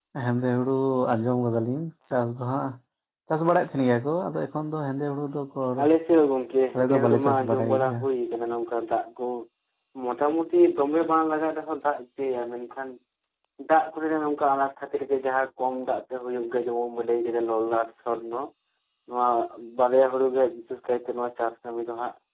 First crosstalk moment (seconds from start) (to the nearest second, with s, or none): 7 s